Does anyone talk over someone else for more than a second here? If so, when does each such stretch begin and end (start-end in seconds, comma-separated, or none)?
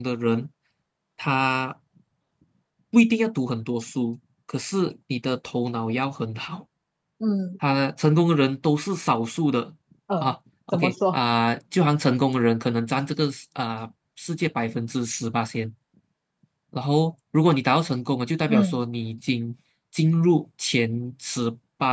none